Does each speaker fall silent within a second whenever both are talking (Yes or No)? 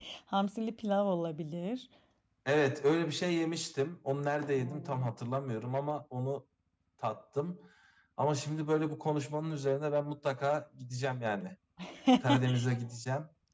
Yes